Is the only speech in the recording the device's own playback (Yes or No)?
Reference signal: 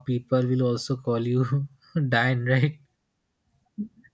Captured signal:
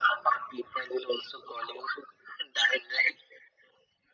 Yes